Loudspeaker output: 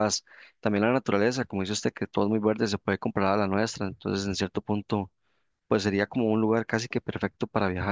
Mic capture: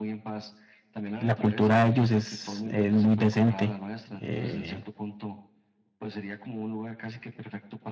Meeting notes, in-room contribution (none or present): present